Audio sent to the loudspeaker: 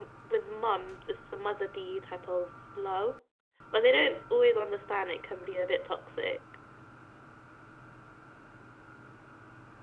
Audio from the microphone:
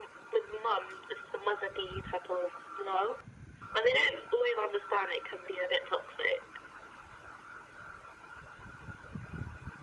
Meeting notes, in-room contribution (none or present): none